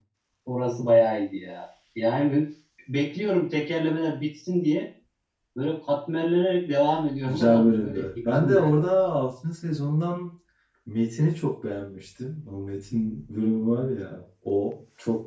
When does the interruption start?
7.3 s

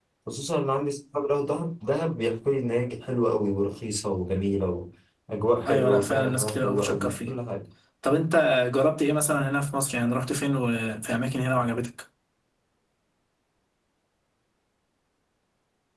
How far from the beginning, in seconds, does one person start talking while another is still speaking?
5.7 s

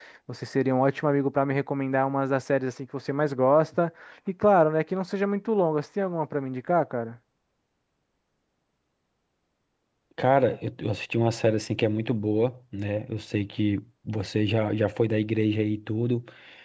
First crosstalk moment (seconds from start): none

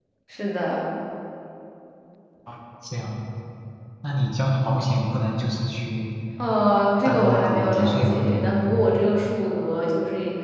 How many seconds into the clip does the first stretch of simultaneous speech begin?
7.0 s

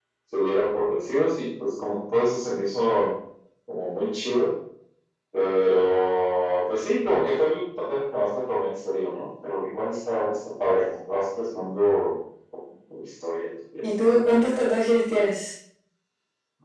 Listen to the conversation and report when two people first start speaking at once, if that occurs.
none

